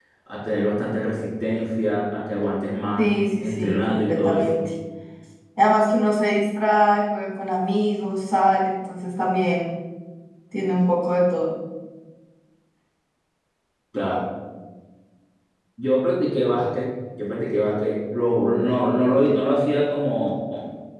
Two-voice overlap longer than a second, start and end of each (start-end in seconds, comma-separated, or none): 3.0-4.6